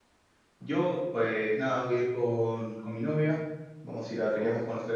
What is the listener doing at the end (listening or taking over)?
listening